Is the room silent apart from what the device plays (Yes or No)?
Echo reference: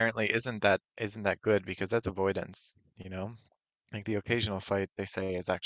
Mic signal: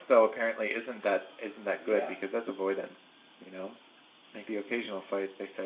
No